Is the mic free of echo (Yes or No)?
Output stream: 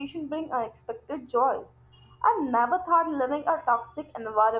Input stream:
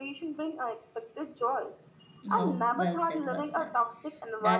No